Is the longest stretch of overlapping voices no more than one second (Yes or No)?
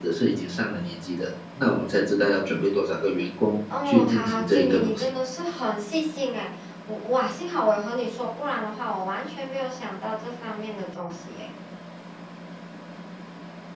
No